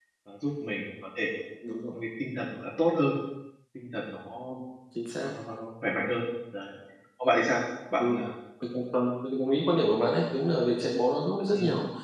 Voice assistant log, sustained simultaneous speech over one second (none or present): none